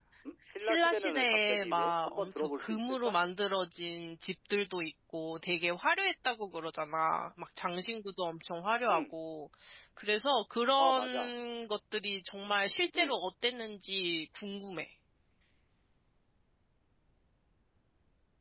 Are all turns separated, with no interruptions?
No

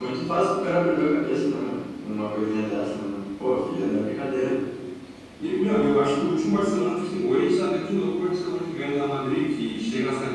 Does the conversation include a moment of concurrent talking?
No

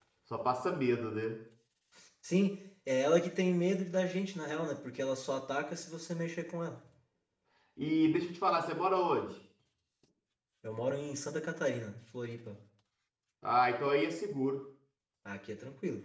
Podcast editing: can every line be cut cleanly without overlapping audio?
Yes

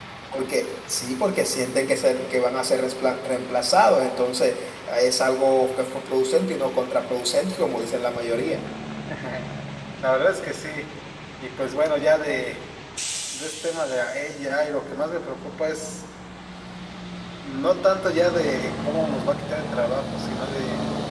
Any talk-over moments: No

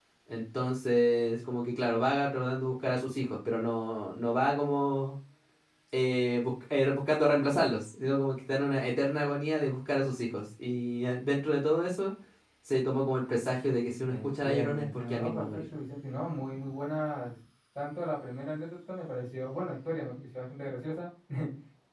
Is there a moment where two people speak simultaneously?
Yes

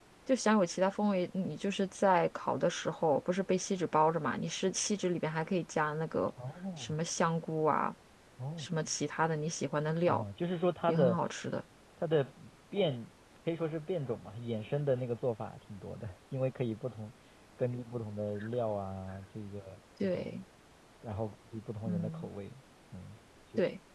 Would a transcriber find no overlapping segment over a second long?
Yes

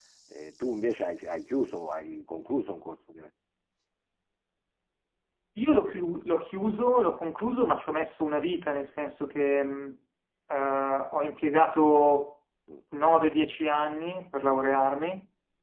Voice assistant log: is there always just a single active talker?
Yes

